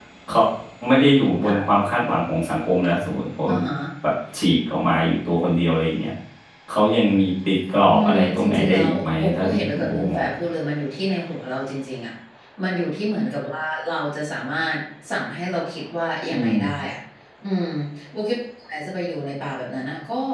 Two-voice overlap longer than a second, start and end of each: 7.9-10.3

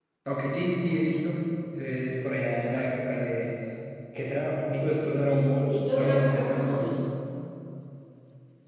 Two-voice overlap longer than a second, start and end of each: 5.2-7.0

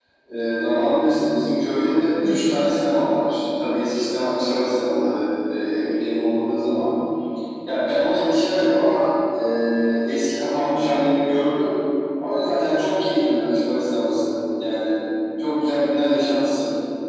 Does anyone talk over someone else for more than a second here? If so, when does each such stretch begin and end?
none

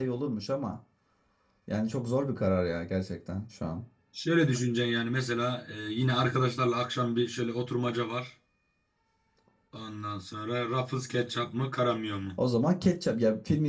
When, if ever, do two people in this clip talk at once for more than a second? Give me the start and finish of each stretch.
none

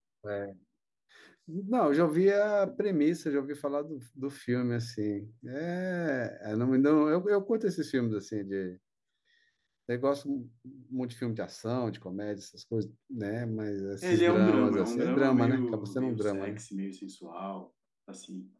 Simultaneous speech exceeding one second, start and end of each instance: 14.0-16.6

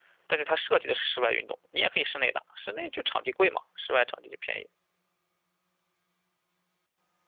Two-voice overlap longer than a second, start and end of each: none

